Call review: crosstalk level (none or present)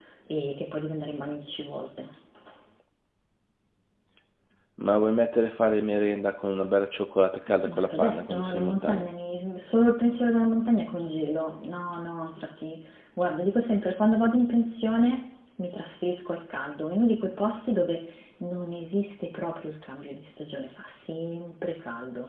present